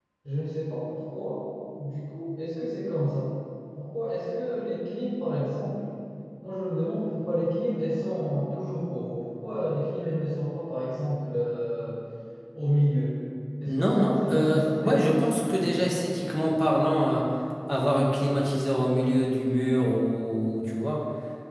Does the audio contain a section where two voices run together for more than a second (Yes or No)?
Yes